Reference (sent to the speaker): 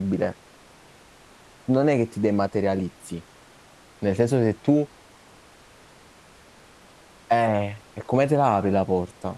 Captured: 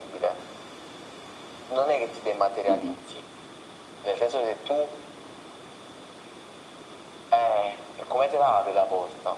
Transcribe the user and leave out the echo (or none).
uno.